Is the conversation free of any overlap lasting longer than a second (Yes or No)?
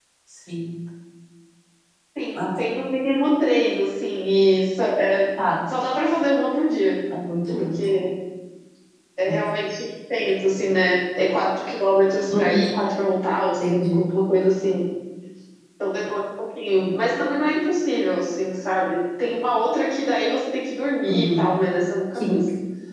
Yes